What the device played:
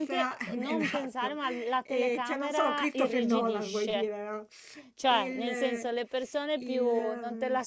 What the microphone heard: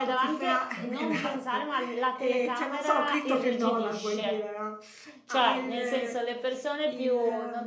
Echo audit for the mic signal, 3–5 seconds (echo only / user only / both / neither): echo only